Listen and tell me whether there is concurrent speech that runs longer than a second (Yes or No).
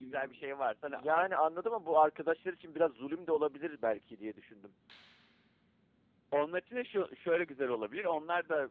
No